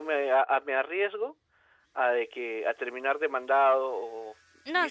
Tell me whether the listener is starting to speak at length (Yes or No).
Yes